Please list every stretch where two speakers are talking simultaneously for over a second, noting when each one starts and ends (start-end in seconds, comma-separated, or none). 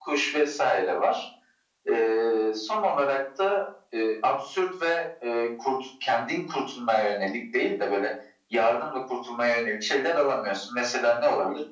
none